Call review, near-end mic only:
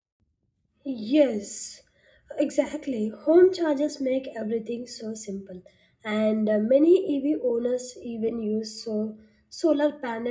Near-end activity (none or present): present